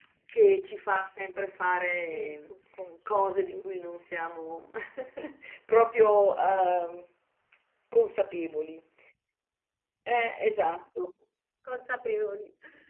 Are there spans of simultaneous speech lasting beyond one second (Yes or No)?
No